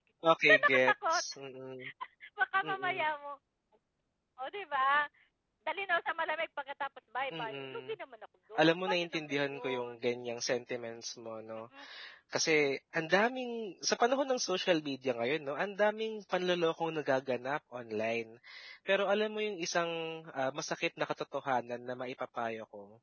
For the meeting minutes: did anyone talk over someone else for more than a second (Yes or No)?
Yes